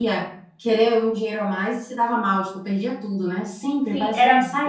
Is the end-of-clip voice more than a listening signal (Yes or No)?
Yes